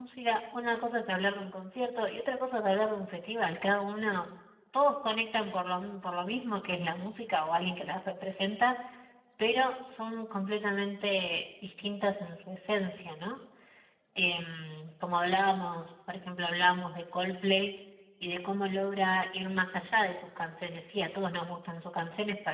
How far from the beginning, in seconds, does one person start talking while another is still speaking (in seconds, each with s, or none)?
none